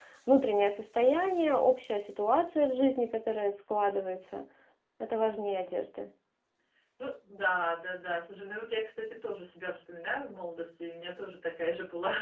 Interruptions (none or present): none